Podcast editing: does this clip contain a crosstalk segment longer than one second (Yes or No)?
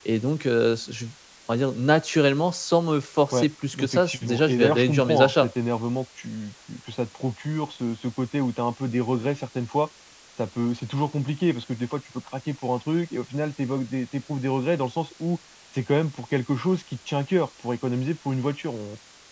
Yes